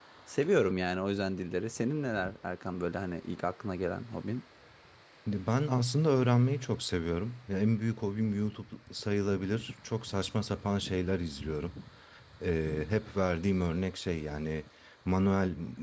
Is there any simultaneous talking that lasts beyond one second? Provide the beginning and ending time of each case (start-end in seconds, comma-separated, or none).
none